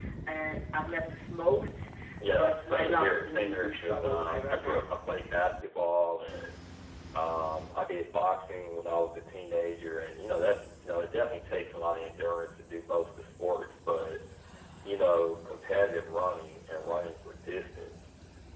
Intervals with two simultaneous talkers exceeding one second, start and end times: 2.3-4.6

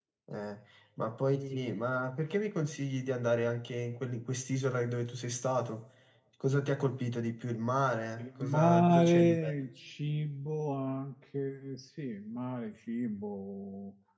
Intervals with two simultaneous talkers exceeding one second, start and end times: 8.2-9.5

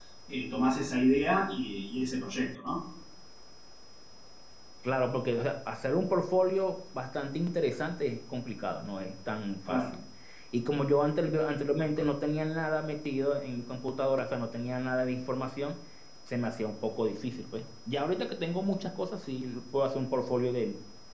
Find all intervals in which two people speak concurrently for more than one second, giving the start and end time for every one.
none

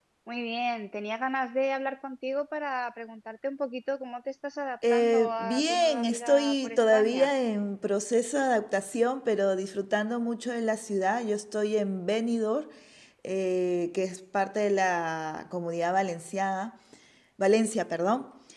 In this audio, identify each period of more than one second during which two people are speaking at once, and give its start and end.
4.9-7.3

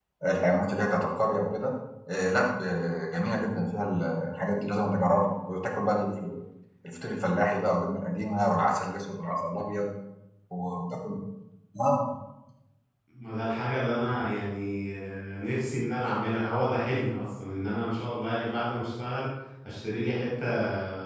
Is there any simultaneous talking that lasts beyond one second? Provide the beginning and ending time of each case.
none

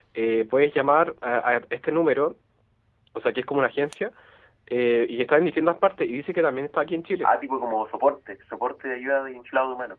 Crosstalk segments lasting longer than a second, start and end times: none

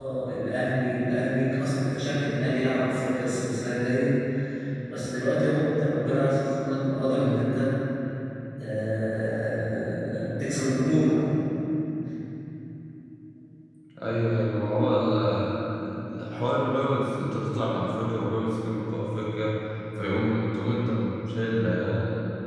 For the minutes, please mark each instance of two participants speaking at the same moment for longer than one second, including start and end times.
none

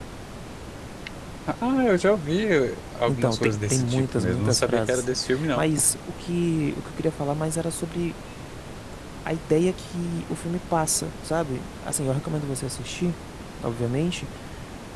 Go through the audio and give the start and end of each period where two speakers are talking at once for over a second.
3.1-5.1

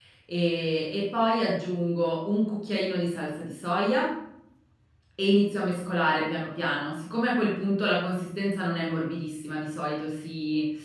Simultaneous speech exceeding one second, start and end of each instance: none

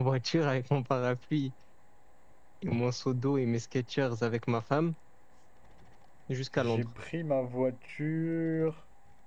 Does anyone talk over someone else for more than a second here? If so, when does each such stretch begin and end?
none

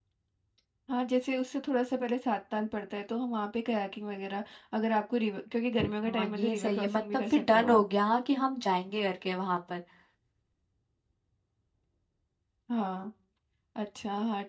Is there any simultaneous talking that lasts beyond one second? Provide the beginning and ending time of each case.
5.8-7.8

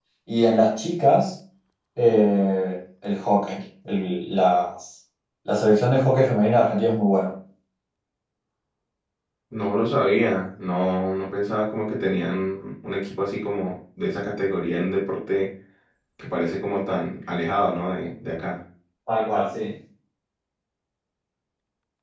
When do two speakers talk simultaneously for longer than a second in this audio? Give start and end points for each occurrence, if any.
none

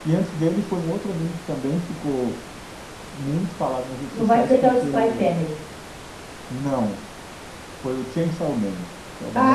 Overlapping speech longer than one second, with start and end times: 4.1-5.3

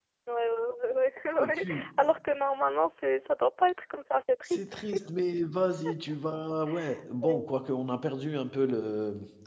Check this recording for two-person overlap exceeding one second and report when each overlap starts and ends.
none

